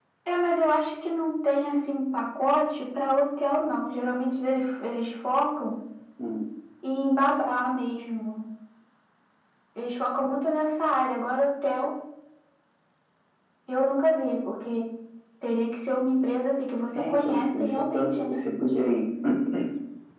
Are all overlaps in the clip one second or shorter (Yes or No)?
No